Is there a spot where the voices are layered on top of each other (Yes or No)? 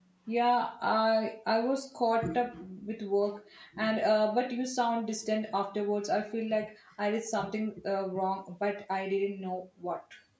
No